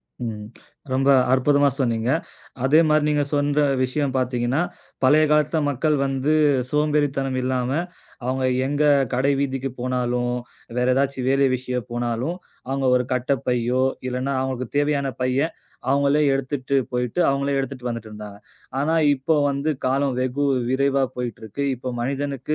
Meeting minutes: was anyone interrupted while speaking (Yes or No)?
No